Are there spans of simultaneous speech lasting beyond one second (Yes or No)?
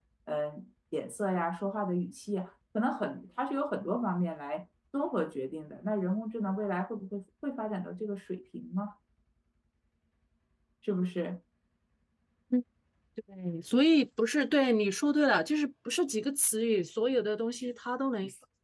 No